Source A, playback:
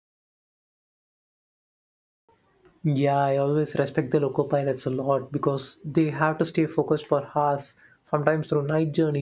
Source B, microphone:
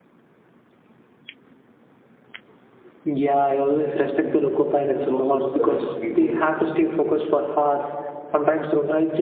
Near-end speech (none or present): present